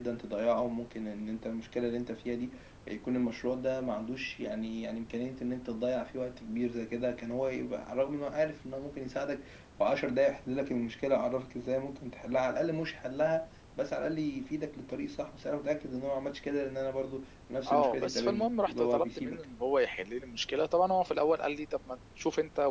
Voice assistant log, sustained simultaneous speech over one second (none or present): present